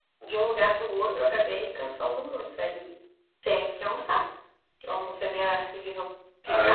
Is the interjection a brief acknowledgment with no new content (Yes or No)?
No